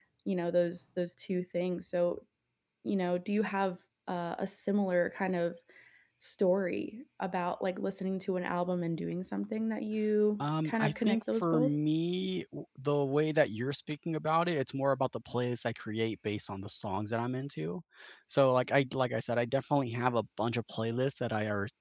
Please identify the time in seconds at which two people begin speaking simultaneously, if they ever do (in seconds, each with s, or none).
10.4 s